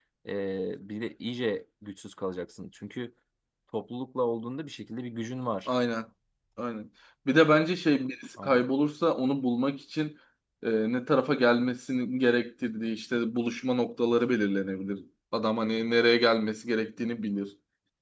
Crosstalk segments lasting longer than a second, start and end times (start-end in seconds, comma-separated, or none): none